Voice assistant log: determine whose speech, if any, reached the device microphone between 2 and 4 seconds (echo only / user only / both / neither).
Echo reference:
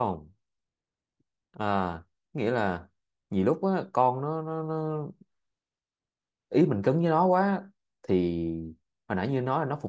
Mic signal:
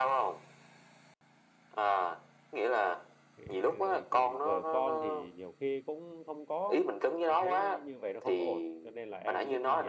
both